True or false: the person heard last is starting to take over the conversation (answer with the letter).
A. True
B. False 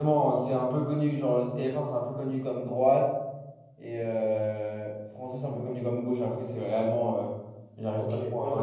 A